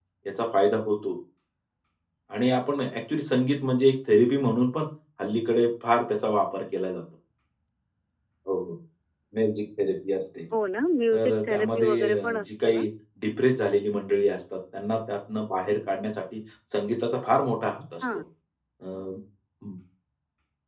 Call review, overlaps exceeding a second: present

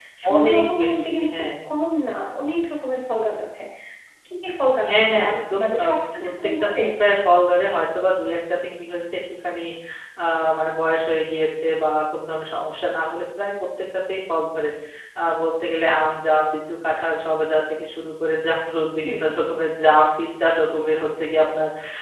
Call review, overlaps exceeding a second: present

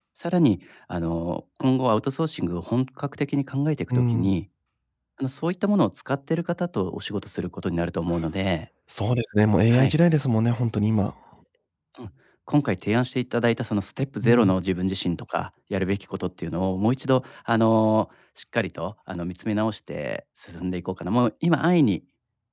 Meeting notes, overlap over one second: none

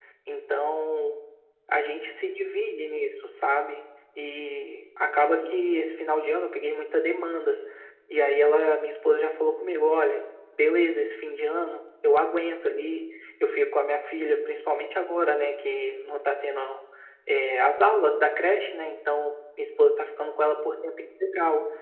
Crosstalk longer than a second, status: none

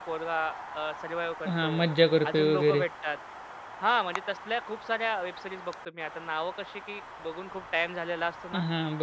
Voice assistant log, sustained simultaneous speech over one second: none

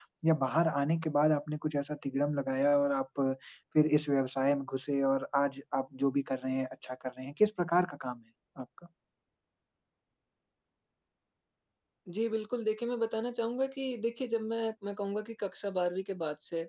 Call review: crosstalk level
none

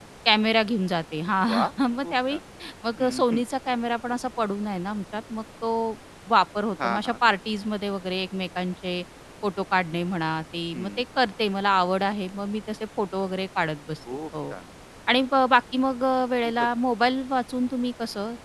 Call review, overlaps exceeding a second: none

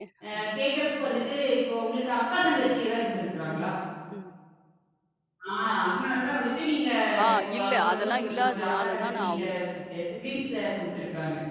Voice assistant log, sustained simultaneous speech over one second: present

